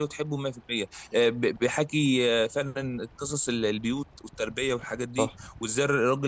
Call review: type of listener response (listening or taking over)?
listening